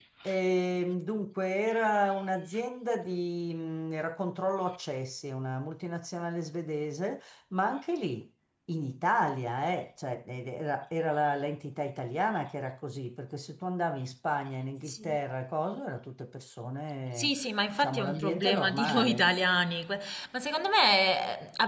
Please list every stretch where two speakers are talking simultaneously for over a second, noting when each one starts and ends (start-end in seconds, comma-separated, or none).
17.8-19.3